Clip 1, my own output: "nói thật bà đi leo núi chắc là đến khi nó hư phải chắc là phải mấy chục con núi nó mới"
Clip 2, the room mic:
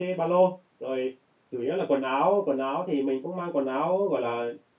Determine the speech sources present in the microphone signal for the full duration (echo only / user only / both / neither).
user only